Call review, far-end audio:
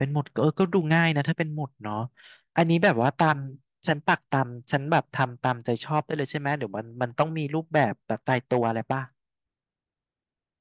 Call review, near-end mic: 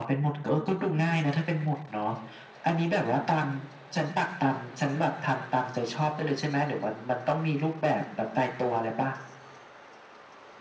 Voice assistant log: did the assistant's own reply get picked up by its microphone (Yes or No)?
Yes